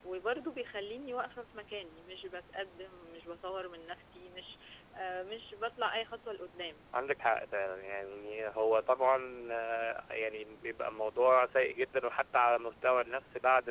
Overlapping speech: No

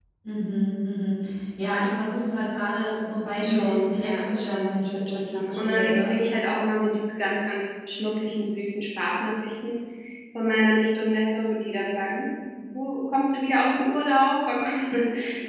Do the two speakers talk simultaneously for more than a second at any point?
Yes, from 3.4 s

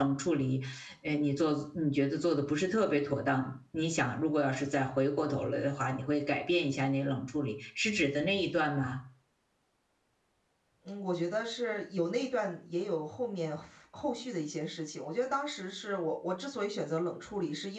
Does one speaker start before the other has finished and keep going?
No

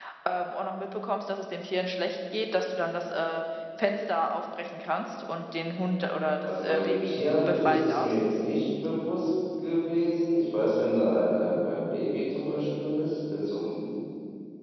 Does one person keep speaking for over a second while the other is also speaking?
Yes, from 6.5 s

